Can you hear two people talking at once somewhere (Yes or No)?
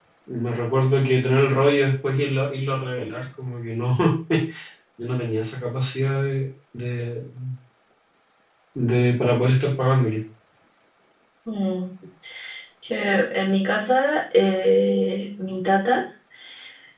No